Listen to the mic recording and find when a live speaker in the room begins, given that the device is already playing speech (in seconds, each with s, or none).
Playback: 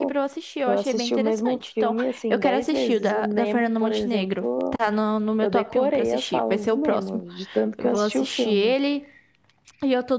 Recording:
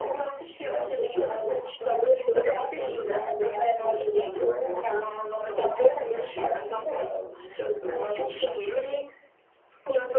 none